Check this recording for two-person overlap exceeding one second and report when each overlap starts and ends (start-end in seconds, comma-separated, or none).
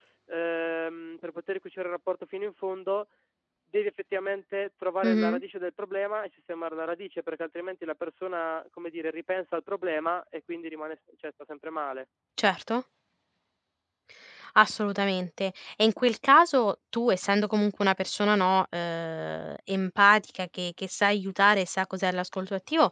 none